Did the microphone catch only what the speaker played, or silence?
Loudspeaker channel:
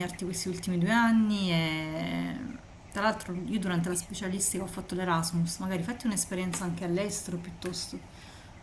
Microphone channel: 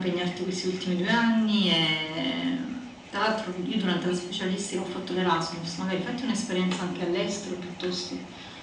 Yes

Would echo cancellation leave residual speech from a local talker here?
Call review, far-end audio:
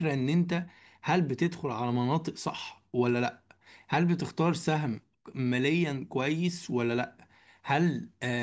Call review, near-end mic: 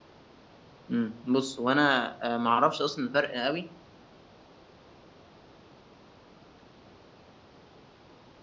Yes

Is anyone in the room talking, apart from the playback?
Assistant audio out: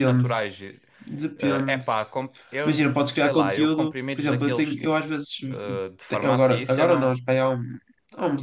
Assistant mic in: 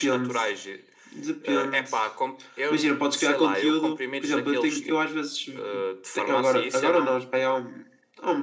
No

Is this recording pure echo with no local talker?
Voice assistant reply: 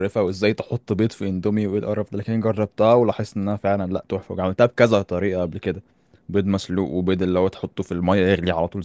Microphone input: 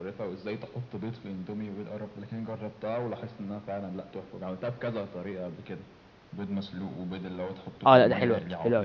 No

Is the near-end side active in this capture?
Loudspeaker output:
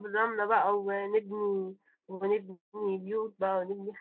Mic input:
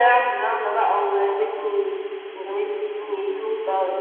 No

